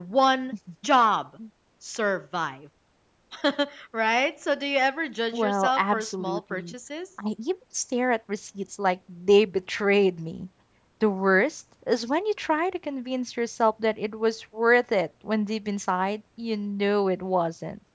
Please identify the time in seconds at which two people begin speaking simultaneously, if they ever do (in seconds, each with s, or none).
5.3 s